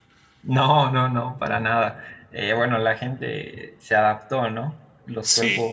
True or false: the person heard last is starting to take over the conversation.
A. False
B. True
A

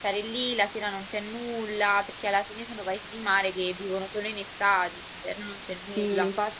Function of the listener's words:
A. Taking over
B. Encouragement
A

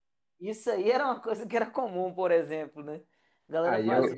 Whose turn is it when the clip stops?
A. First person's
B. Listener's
B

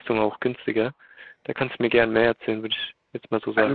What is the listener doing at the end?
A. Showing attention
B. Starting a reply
B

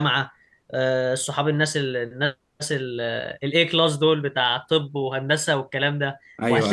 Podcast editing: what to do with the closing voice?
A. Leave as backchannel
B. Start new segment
A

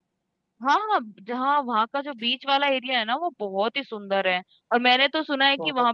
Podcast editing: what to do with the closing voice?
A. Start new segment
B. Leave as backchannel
B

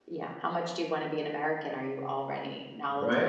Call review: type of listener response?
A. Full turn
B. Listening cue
A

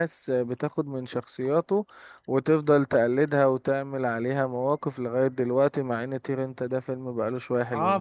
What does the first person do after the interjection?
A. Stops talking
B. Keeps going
A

